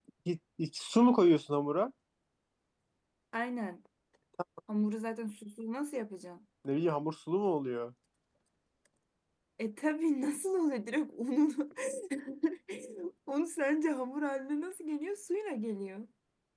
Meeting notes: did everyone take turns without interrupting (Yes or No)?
Yes